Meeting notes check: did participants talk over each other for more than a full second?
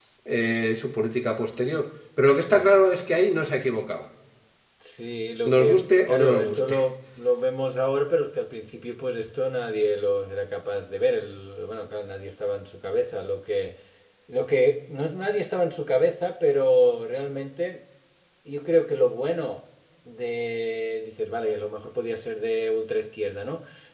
Yes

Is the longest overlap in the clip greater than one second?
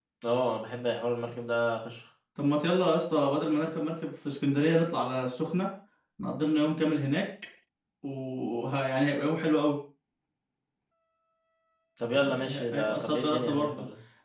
Yes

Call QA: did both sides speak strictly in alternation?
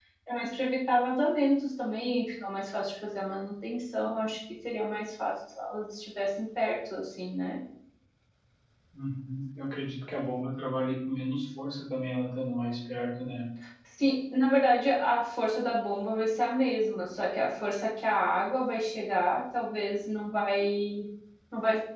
Yes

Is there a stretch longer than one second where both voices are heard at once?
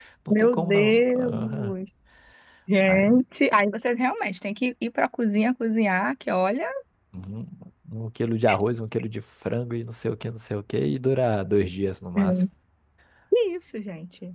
Yes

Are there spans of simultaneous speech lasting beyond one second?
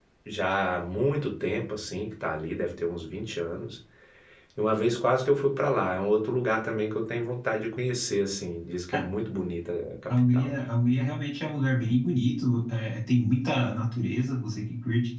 No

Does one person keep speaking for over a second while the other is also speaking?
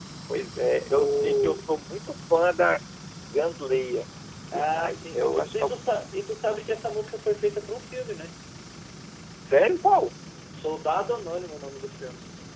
Yes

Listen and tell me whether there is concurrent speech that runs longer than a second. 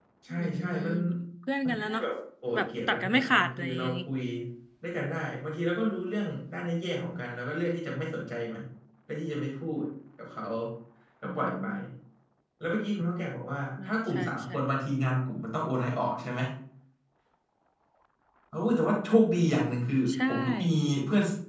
Yes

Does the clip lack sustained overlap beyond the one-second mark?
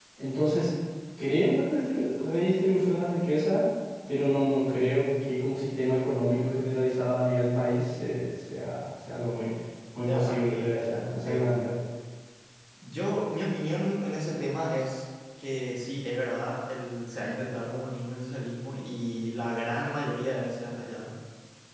No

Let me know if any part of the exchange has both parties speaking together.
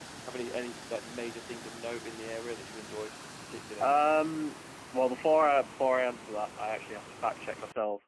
No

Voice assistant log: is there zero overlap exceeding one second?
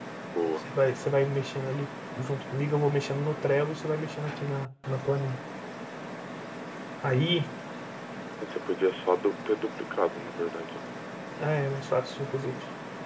Yes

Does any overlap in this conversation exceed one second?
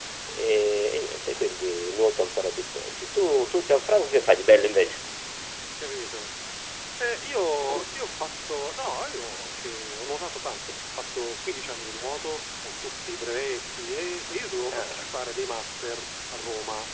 No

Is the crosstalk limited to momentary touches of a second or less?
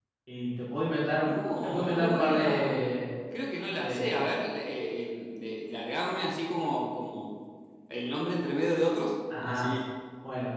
No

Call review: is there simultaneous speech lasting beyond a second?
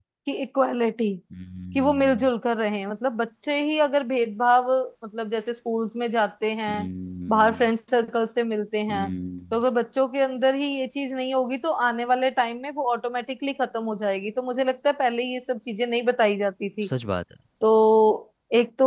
No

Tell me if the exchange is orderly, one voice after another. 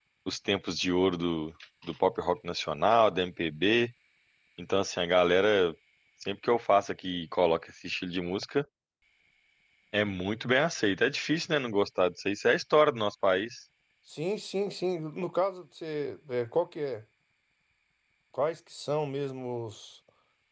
Yes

